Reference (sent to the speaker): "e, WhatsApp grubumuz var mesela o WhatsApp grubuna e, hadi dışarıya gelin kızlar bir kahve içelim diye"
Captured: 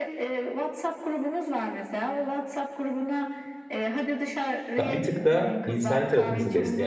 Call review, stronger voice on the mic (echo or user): user